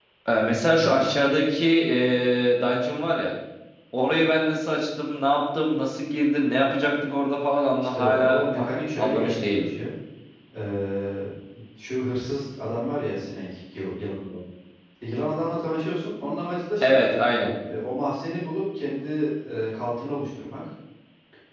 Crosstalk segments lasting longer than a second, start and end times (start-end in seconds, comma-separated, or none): 7.9-9.7